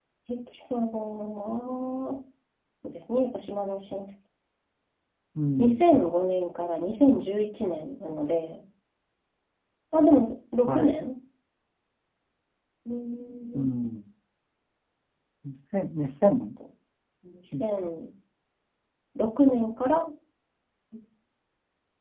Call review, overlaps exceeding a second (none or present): none